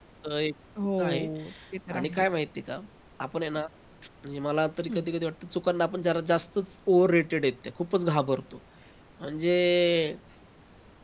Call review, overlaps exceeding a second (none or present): none